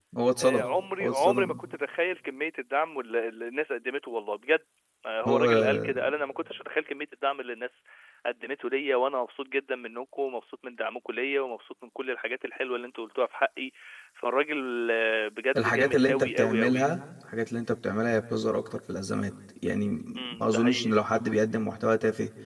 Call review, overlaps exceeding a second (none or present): present